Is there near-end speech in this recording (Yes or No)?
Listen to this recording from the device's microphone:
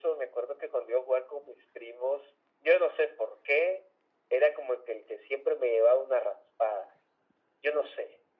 No